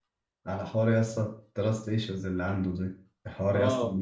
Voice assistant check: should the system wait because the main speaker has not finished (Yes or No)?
Yes